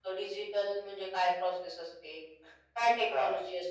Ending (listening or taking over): listening